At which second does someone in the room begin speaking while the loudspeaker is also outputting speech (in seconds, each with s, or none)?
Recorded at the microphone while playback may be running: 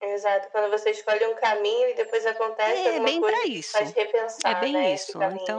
2.6 s